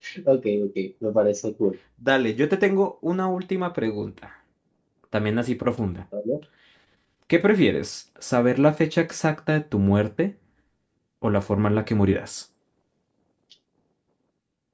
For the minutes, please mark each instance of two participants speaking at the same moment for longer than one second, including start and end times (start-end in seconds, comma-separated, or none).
none